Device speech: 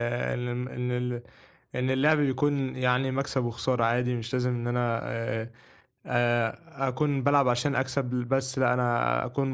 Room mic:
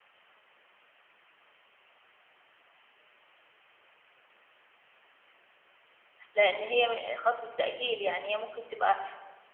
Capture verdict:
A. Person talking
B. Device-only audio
A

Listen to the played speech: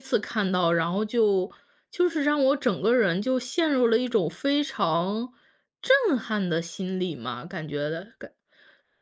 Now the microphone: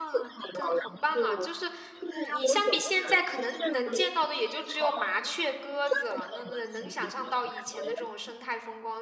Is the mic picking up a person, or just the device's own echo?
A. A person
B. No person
A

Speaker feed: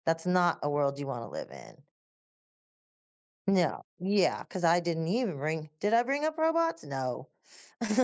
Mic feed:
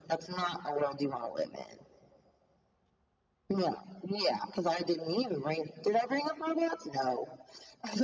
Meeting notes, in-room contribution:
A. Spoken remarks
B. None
B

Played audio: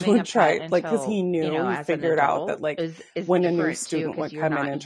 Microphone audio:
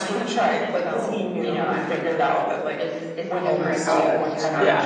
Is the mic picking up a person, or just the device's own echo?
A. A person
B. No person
A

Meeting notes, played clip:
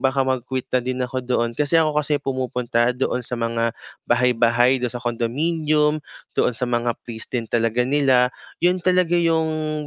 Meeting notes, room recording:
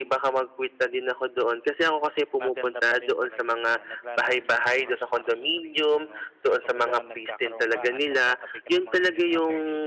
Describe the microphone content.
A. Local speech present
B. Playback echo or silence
A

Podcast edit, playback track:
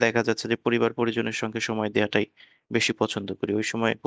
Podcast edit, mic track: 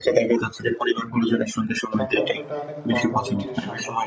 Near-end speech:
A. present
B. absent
A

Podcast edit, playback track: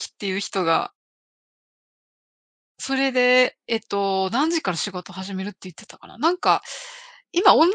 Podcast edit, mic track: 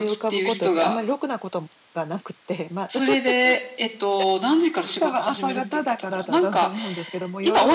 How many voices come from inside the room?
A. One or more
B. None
A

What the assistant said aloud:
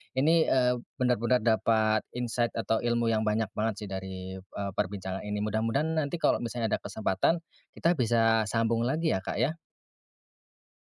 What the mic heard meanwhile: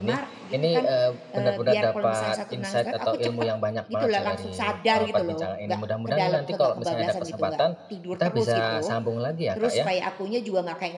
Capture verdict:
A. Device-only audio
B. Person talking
B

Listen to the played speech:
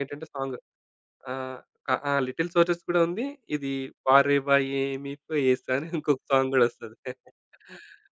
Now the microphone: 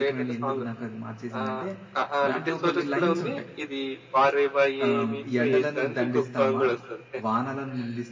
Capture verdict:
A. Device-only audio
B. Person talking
B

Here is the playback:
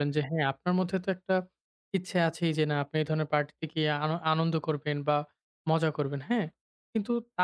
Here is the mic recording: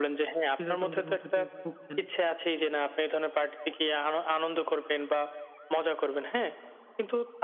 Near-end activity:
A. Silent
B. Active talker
B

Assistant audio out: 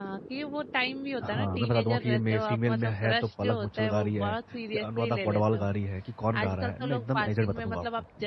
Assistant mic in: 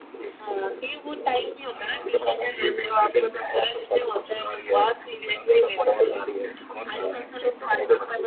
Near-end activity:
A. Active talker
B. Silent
B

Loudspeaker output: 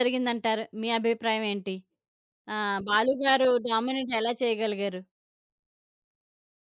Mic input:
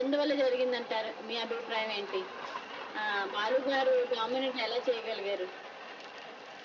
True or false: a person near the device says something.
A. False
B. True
A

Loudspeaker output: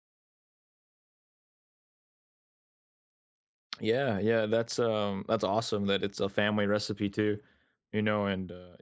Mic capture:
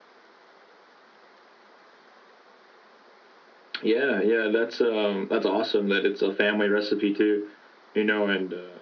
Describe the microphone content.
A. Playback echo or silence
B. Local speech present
A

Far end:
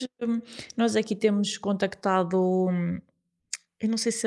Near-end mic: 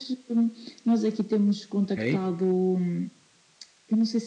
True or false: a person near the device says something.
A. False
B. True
B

